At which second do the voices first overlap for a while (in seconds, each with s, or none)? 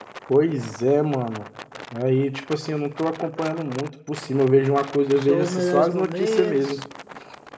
5.2 s